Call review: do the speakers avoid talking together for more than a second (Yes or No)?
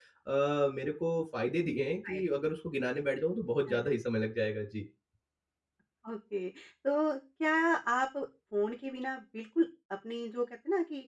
Yes